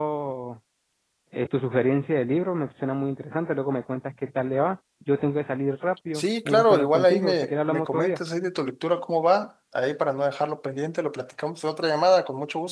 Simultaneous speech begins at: 6.1 s

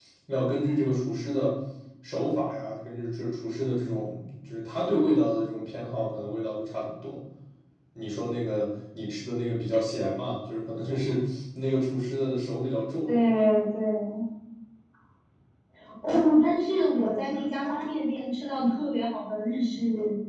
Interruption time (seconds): none

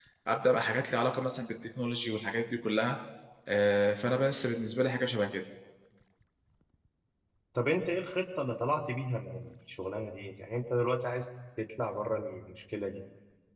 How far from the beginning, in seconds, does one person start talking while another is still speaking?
none

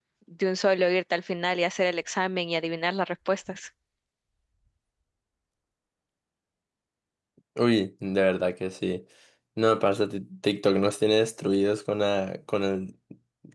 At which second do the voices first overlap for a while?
none

